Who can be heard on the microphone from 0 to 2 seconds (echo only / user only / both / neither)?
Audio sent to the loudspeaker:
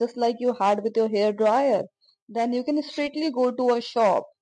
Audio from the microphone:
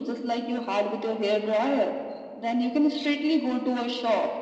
echo only